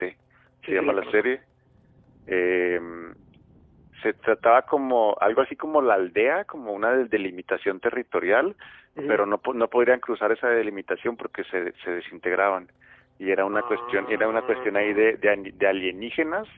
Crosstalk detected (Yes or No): Yes